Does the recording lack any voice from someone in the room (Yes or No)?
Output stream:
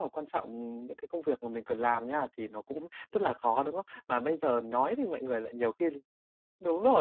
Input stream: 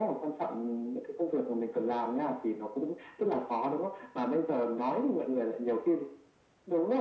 Yes